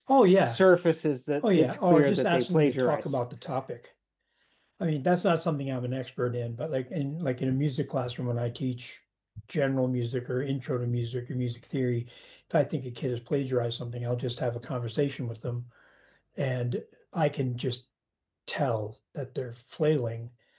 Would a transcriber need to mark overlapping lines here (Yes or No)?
Yes